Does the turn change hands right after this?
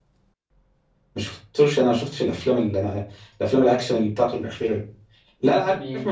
No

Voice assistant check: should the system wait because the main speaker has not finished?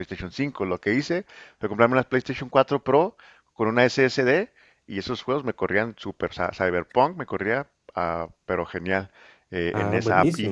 Yes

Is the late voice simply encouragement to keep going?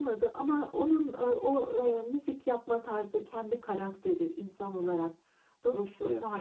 Yes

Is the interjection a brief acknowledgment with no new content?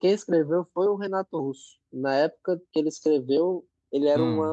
Yes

